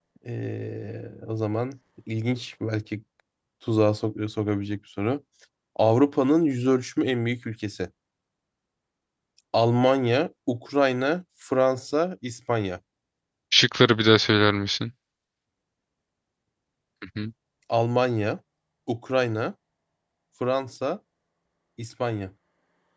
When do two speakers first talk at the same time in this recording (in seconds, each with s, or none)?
none